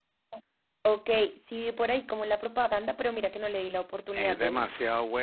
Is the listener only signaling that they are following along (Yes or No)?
No